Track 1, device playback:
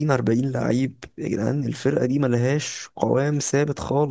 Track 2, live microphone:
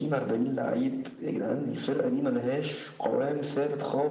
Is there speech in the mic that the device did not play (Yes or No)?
No